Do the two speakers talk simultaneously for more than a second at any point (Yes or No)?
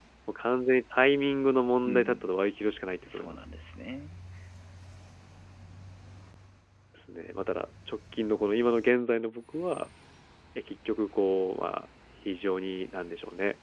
No